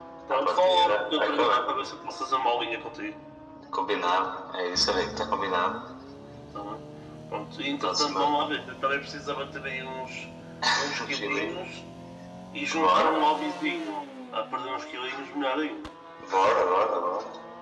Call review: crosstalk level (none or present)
present